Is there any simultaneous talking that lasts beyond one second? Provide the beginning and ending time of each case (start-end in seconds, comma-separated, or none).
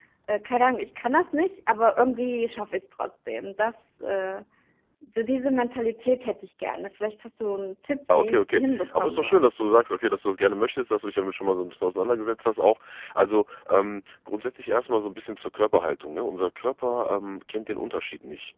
8.1-9.4